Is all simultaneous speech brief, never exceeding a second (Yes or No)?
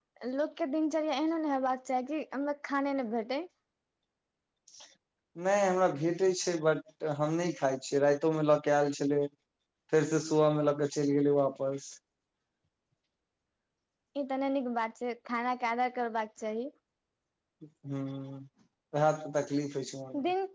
Yes